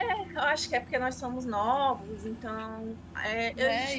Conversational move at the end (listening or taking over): taking over